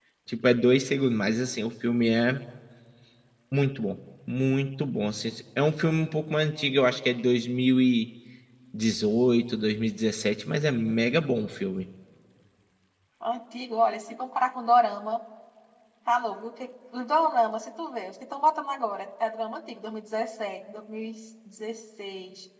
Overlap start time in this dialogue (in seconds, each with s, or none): none